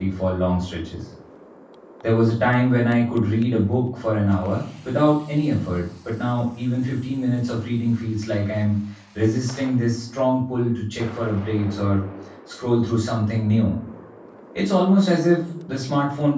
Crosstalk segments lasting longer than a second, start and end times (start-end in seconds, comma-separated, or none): none